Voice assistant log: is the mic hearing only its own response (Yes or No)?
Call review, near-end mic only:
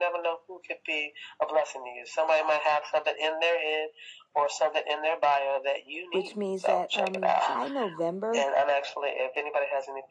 No